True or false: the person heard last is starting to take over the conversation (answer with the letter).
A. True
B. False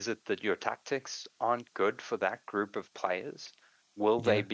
B